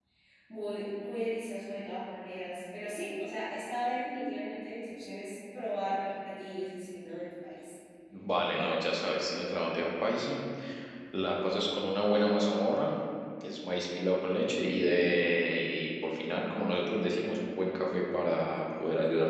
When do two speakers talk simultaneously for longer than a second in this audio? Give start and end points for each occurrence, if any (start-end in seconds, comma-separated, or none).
none